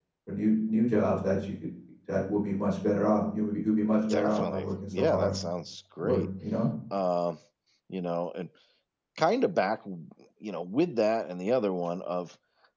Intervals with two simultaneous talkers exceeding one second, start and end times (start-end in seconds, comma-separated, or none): 4.1-5.3